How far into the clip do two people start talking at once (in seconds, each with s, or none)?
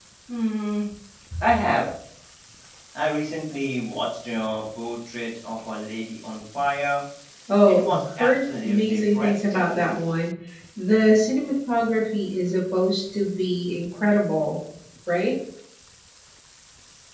7.7 s